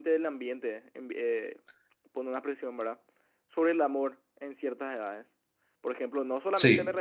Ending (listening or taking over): listening